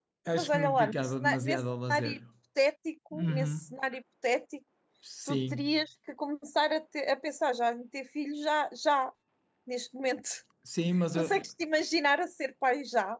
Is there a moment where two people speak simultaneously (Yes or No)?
Yes